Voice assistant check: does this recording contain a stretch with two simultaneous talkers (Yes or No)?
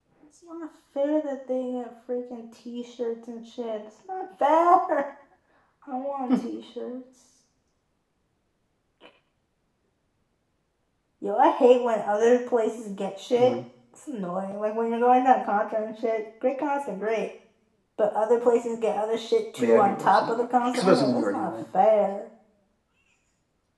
Yes